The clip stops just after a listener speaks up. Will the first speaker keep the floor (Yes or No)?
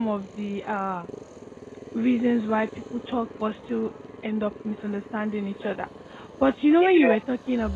Yes